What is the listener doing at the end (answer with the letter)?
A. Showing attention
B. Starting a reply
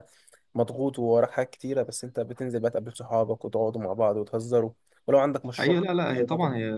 B